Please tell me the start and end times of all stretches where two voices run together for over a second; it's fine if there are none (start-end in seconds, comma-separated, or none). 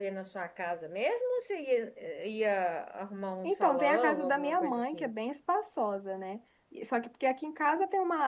3.5-5.1